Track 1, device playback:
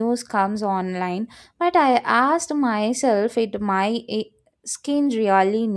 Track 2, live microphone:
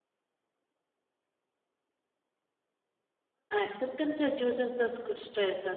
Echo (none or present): none